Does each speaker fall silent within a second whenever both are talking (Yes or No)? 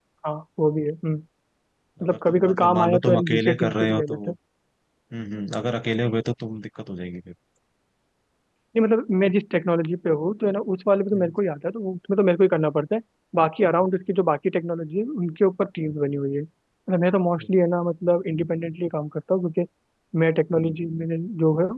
No